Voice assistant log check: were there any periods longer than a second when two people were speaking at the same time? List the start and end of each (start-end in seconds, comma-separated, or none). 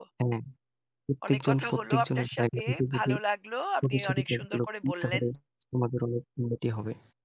1.3-3.1, 3.9-5.2